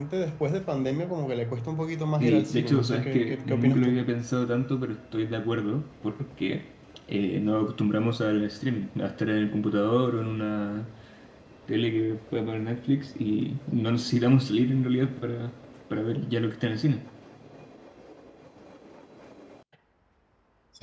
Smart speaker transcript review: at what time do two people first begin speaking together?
2.2 s

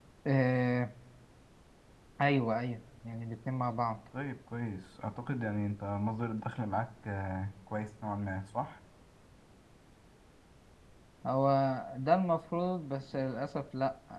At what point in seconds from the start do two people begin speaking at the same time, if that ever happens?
none

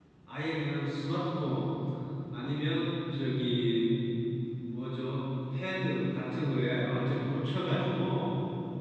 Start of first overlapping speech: none

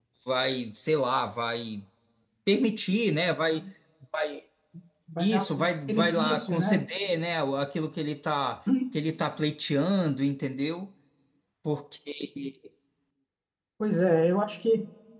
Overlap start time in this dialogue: 5.2 s

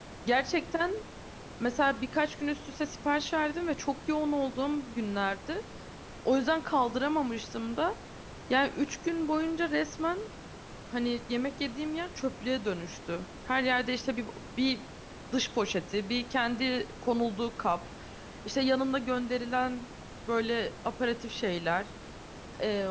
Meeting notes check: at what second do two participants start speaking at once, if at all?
none

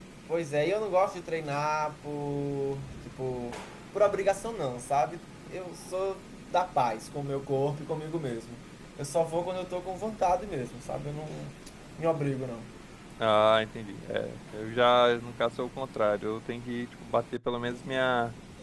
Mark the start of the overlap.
none

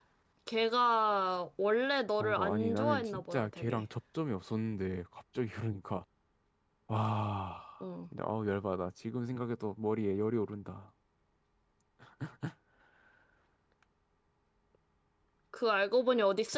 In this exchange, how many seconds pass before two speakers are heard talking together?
2.2 s

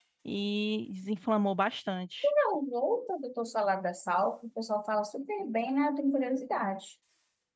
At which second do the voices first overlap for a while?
none

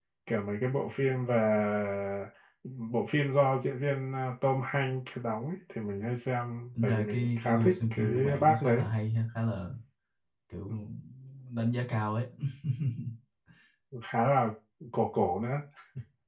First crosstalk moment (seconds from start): 6.8 s

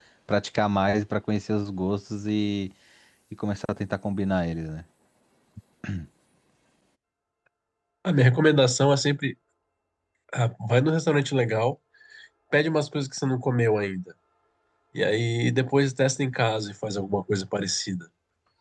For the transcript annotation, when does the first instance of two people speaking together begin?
none

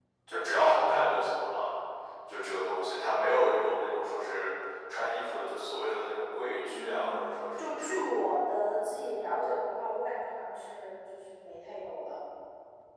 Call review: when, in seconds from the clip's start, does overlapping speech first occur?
6.7 s

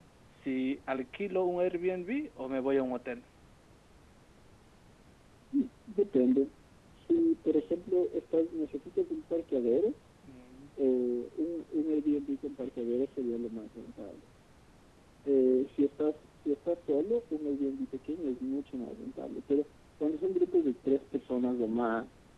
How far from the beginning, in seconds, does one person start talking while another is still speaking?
none

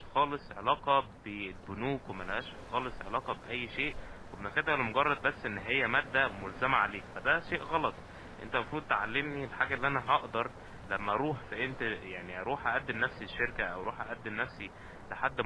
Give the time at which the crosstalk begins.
none

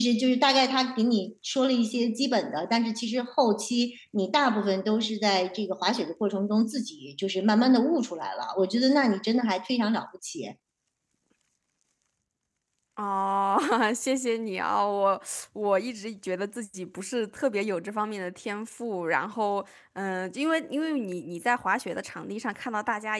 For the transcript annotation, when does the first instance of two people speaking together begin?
none

